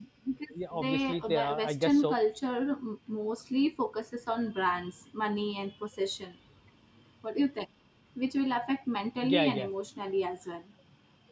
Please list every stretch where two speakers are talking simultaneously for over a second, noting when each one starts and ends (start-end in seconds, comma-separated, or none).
0.7-2.1